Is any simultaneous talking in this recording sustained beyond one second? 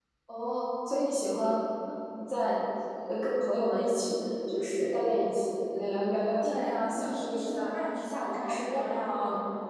Yes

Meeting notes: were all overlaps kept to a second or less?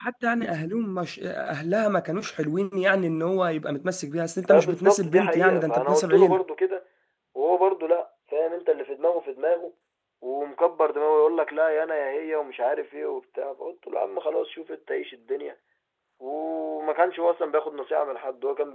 No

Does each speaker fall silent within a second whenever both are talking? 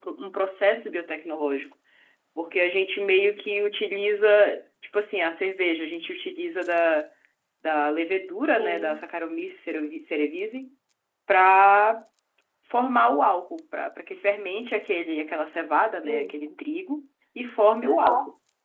Yes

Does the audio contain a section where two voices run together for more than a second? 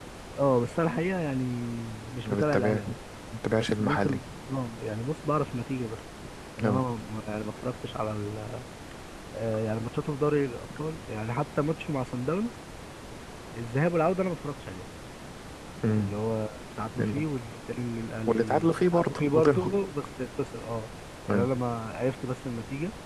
Yes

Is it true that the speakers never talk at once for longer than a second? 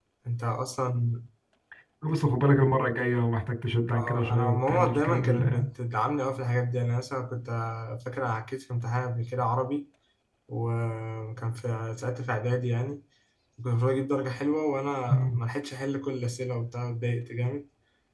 No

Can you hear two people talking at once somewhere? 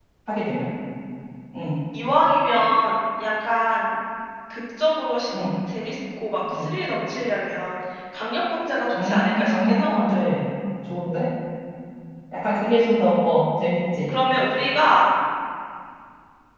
Yes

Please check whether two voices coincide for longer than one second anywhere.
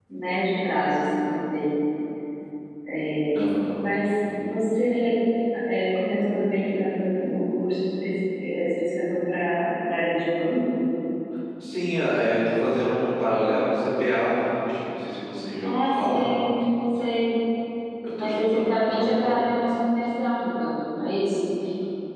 Yes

